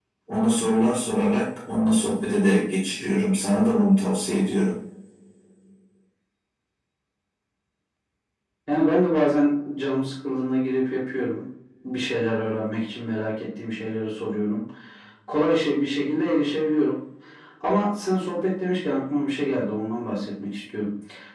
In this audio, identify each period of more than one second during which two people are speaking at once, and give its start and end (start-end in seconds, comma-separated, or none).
none